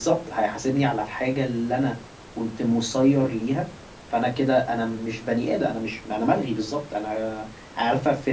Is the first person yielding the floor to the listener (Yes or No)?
No